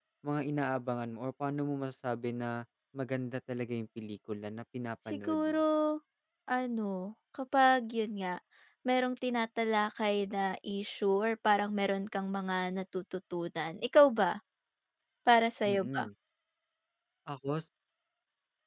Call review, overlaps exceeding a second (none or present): none